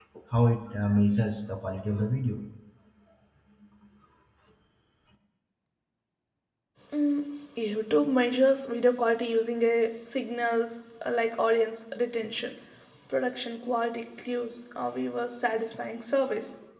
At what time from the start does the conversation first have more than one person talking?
none

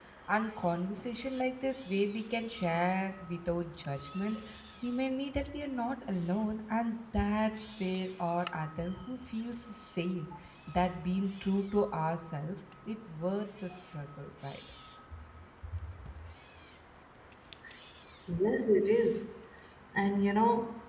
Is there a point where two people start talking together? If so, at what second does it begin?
none

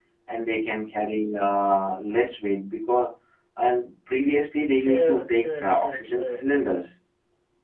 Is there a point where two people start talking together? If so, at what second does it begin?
4.7 s

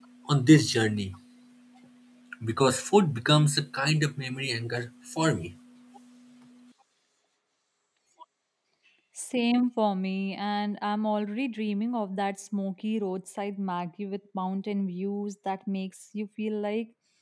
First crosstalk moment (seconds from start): none

